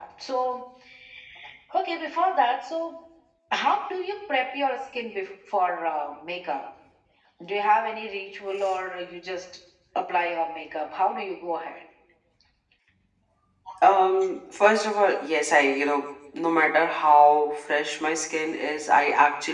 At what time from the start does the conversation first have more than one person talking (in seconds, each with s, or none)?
none